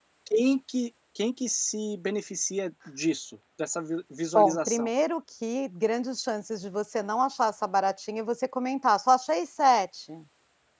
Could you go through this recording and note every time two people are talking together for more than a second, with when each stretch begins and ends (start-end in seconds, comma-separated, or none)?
none